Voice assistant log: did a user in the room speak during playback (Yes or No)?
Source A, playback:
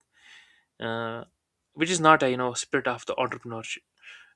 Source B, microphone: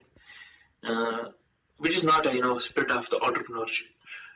No